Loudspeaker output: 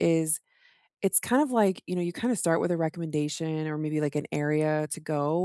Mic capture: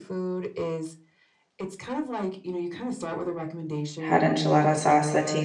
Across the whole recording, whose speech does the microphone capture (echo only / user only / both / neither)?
both